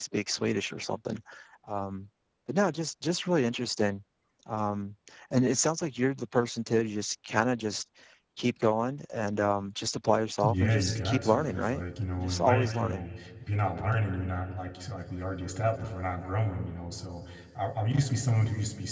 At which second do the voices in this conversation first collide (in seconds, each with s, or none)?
10.4 s